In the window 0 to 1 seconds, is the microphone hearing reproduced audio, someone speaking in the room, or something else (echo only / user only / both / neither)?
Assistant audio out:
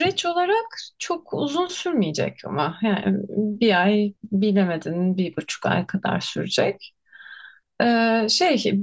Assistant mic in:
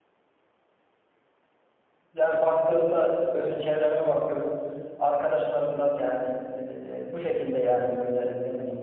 neither